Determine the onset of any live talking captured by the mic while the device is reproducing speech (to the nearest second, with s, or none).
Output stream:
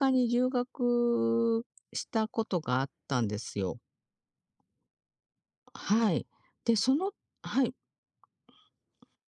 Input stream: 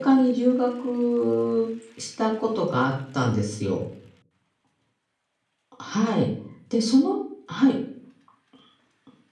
none